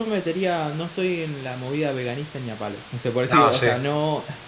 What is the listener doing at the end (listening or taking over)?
listening